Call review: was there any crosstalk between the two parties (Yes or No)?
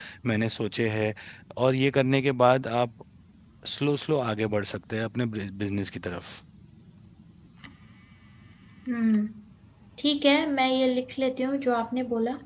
No